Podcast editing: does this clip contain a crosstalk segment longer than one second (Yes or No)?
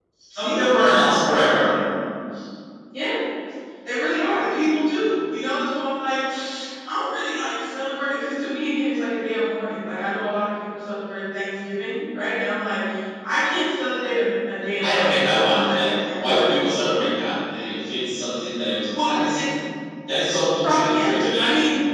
Yes